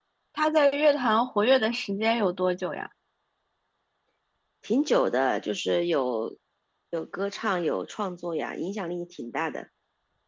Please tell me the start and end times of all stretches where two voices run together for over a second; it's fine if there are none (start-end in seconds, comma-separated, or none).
none